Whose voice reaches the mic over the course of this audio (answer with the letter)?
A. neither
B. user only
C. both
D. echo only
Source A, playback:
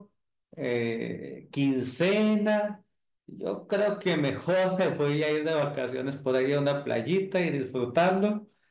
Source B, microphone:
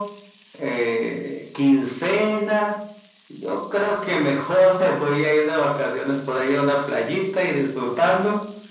D